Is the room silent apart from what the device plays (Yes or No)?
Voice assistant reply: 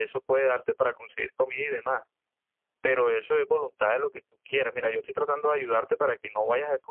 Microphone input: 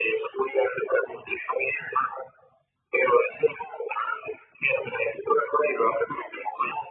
Yes